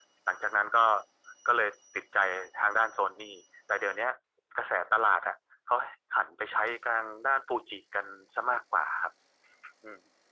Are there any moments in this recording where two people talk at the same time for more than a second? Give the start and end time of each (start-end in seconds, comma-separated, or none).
none